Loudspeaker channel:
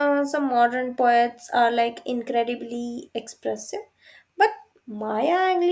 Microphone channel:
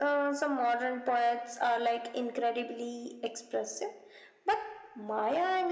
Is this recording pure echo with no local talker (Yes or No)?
Yes